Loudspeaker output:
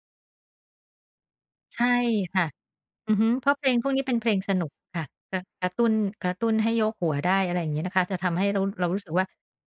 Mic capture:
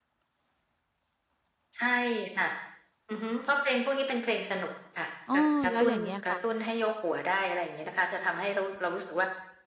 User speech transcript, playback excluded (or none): อ้อ แล้วอย่างเงี้ยค่ะ